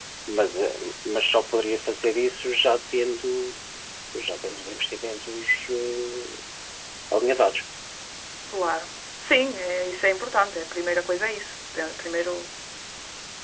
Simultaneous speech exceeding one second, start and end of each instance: none

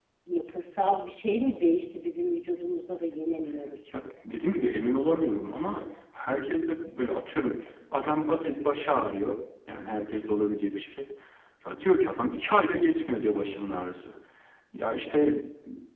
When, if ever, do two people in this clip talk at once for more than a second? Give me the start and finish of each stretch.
none

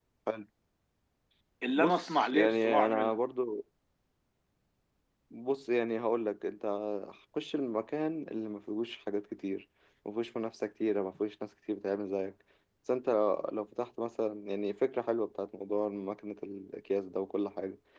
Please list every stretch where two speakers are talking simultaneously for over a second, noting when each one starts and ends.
1.8-3.2

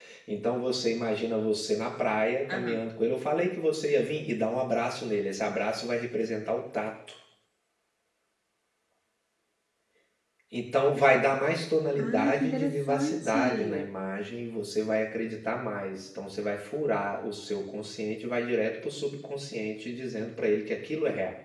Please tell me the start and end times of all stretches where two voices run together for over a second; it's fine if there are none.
12.0-13.9

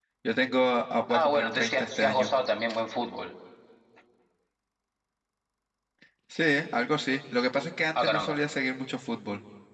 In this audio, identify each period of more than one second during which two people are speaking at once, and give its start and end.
1.1-2.3

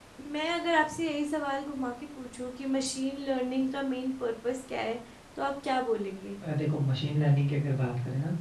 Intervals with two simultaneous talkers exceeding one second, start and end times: none

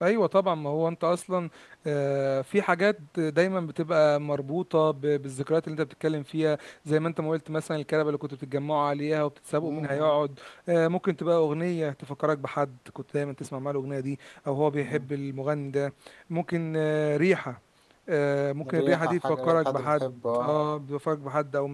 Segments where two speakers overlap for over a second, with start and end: 18.7-20.6

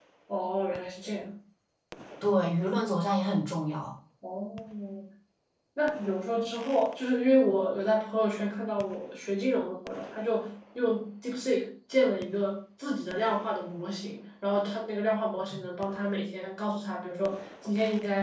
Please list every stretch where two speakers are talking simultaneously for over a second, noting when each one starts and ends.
none

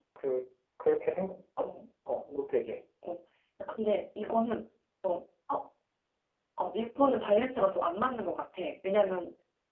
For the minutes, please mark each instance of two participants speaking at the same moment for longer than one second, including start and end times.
none

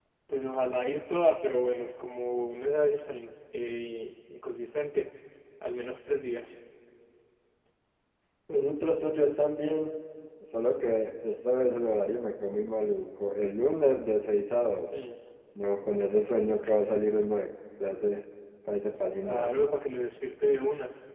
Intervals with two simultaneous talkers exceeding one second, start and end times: none

